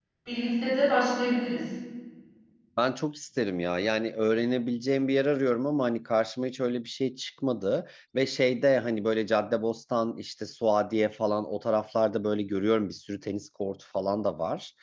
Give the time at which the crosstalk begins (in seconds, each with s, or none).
none